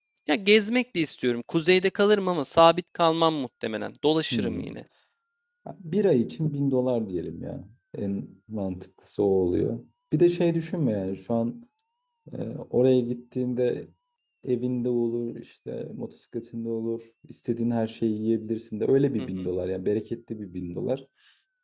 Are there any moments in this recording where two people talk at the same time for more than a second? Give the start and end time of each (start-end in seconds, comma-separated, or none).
none